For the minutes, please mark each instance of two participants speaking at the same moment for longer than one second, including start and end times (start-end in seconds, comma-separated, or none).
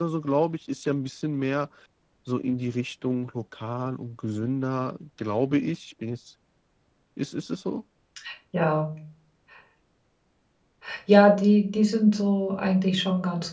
none